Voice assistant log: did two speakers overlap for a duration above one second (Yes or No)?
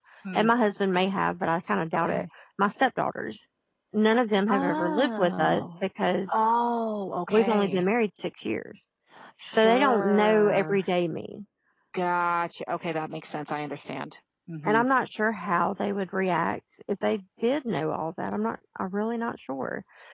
Yes